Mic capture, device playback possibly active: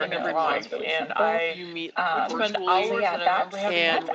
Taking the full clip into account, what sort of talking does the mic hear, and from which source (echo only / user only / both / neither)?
both